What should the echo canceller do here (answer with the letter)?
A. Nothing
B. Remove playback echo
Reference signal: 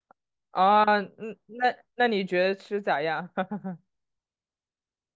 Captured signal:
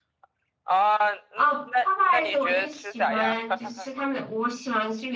B